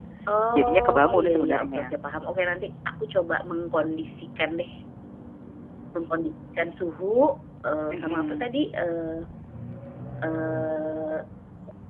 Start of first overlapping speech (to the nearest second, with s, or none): 1 s